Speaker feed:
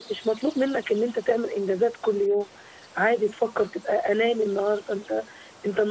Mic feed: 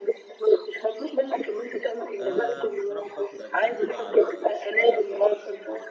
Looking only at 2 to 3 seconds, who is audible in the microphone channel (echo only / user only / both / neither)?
both